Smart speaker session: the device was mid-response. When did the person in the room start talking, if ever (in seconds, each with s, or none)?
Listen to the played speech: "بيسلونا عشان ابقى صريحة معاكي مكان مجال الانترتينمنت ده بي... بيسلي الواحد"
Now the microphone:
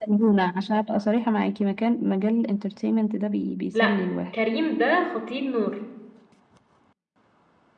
3.7 s